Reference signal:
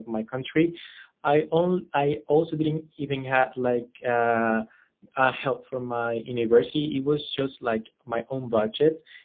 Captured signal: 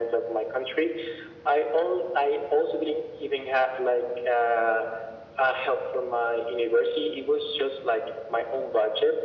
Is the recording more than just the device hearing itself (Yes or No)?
No